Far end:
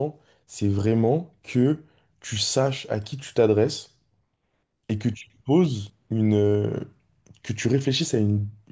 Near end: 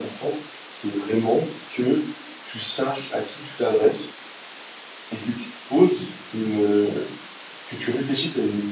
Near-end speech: none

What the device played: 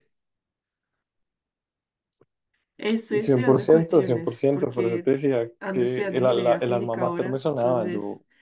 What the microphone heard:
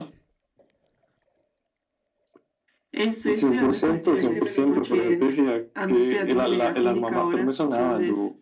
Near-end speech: present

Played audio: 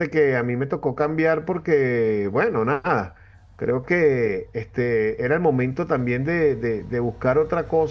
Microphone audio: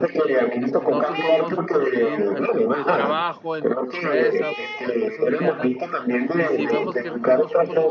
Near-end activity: present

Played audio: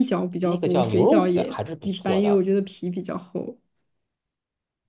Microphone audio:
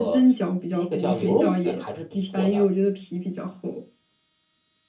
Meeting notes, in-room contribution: none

